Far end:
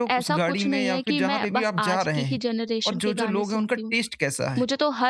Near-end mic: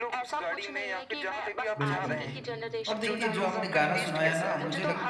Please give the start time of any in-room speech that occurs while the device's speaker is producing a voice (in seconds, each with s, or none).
1.8 s